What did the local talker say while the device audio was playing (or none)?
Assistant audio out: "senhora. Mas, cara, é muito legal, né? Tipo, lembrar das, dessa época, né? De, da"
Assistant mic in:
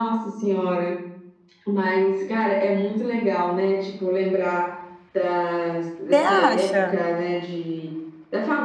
Você acha?